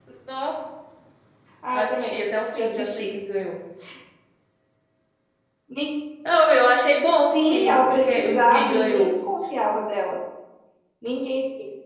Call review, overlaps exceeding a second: present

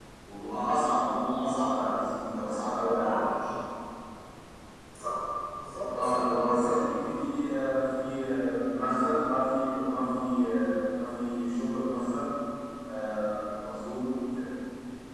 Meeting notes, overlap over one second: present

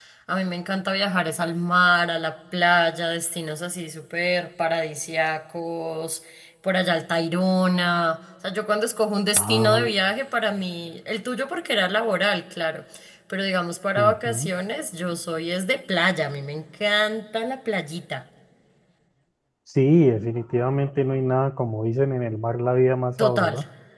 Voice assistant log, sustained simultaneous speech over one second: none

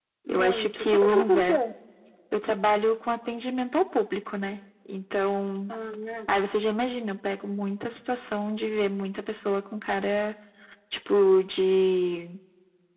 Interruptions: present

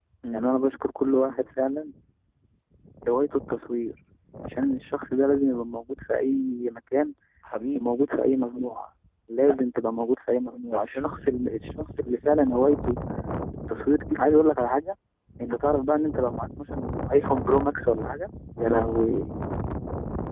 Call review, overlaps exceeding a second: none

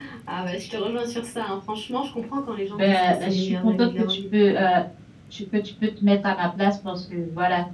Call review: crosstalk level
present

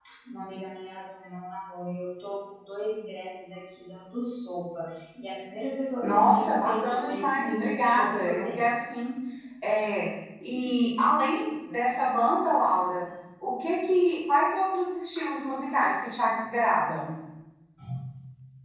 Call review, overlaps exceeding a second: present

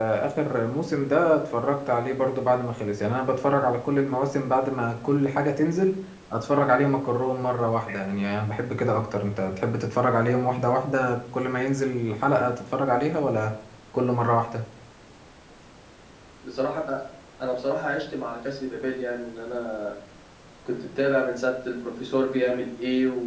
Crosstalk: none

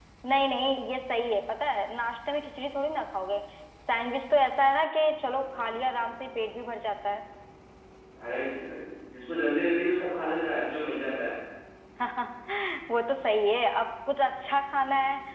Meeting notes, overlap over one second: none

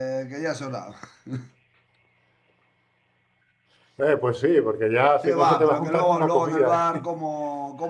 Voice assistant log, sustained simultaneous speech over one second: present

